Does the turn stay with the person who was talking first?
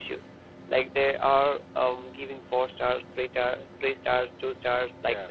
Yes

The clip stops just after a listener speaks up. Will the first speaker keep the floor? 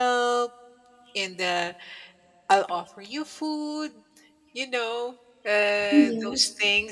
Yes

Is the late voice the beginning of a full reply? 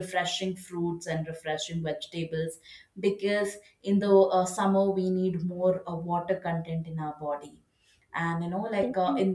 No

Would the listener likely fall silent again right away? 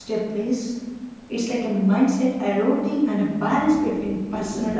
No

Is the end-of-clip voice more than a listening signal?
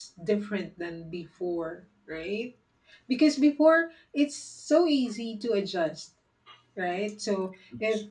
No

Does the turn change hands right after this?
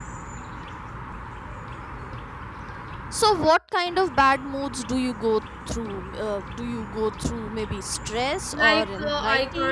Yes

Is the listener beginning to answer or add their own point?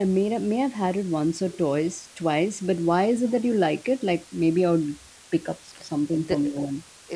Yes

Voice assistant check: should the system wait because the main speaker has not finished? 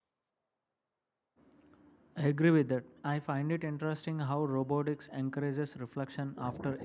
Yes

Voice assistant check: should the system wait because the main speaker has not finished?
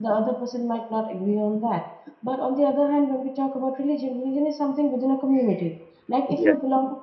Yes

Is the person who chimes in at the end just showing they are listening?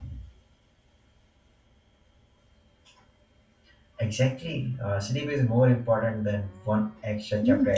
No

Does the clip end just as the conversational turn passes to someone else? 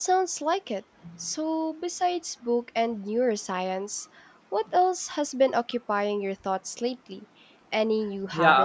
Yes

